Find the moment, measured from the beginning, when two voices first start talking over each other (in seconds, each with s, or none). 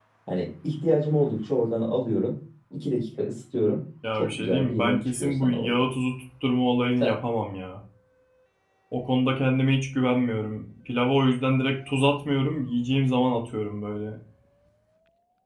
4.2 s